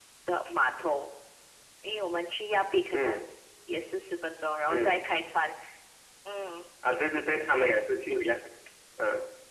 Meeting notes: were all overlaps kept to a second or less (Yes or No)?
Yes